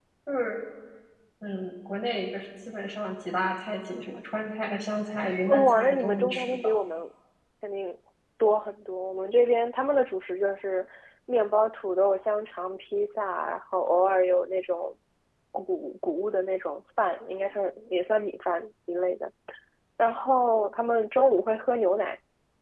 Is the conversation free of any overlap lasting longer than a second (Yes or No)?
No